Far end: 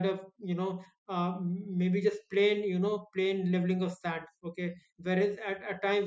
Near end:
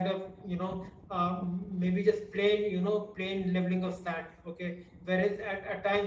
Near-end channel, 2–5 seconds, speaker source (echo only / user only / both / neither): echo only